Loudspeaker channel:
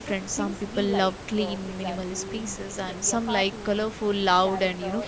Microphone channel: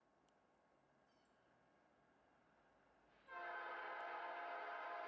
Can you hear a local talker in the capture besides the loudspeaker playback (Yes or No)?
No